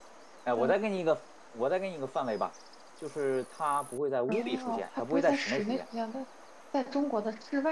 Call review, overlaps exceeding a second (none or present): present